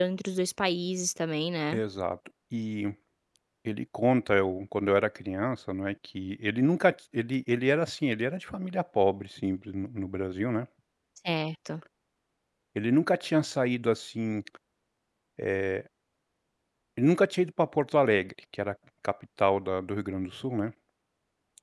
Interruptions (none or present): none